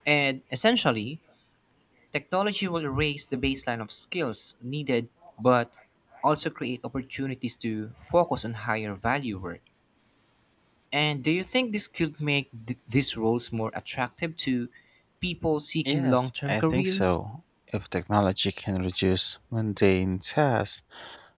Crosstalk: present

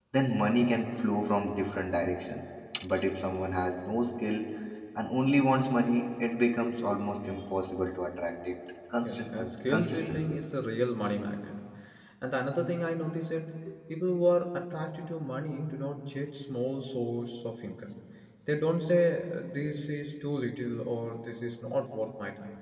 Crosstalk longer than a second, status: present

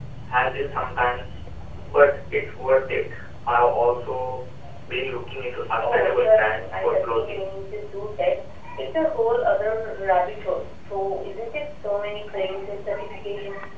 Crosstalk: present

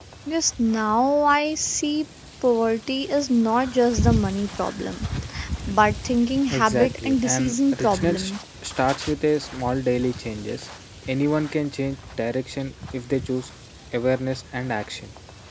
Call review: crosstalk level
present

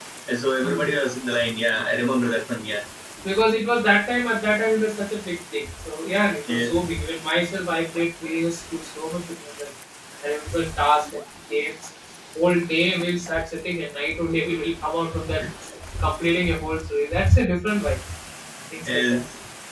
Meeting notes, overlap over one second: none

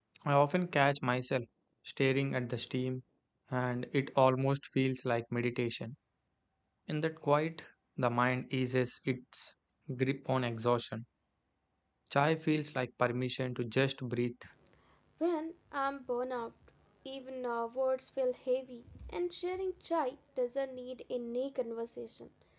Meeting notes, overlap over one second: none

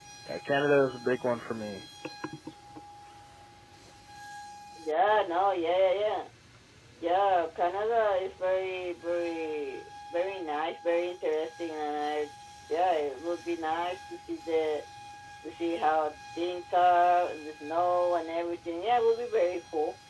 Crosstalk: none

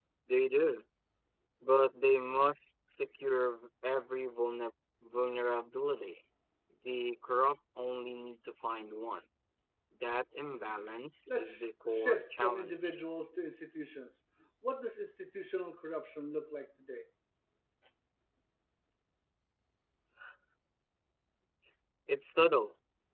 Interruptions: present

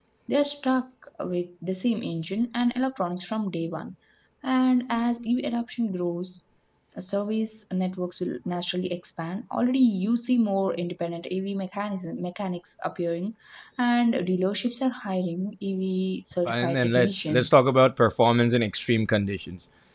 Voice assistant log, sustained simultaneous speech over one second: present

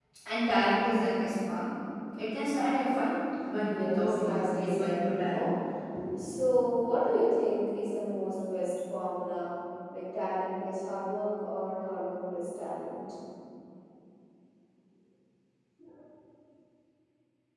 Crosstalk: present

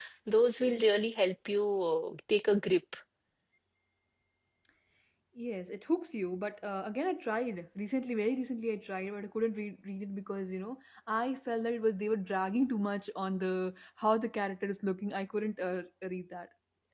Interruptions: none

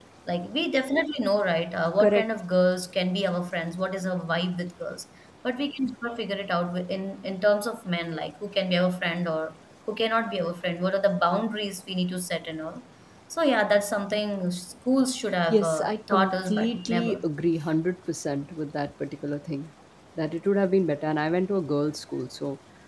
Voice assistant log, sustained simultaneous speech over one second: present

